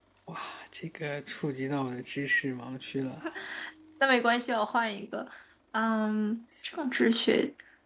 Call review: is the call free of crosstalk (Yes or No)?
Yes